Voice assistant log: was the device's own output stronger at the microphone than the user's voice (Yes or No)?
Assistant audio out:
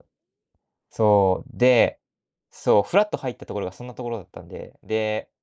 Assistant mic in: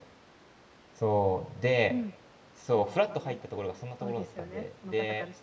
Yes